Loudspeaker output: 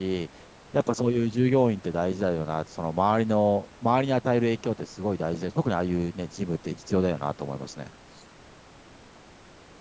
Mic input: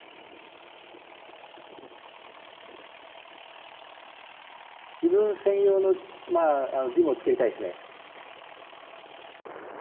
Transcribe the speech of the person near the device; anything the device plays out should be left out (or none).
自分専用の、まあ、あの、ジムを作りたいですね。